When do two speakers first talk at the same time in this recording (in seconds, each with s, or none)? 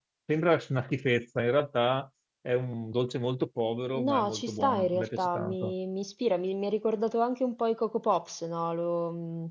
3.9 s